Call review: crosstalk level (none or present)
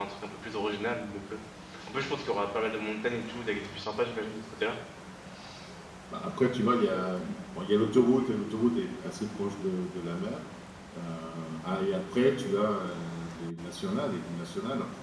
none